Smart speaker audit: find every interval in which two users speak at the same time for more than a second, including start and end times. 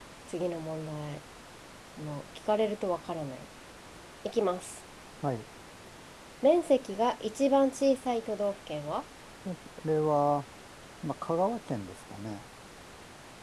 none

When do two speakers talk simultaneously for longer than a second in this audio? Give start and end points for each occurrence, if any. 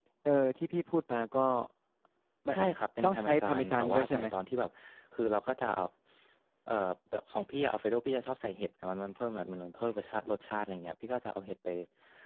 3.0-4.2

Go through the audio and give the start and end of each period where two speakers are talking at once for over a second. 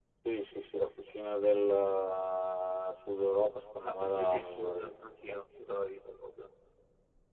3.8-5.5

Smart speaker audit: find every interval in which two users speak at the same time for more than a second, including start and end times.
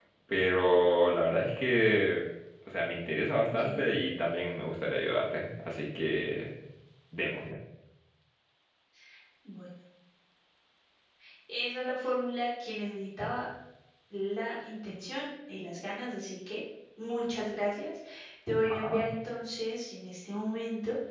none

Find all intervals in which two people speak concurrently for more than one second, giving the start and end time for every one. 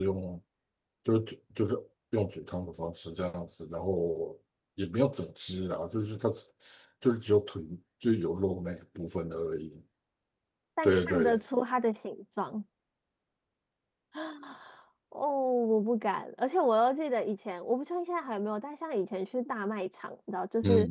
none

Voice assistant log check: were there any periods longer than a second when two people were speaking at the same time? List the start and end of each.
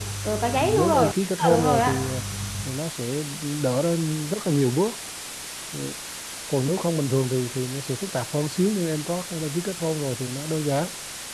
0.5-2.1

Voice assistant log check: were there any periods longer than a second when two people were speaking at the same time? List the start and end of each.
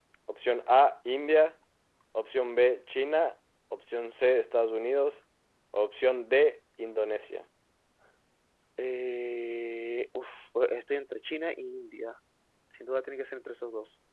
none

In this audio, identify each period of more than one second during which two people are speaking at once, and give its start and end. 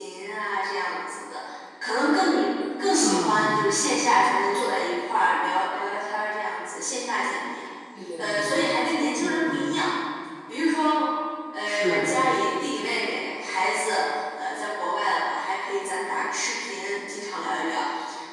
none

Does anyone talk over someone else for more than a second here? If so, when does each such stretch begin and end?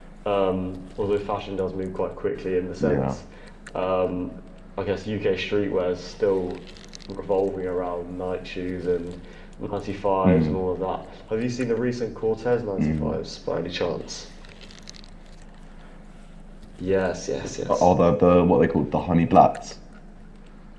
none

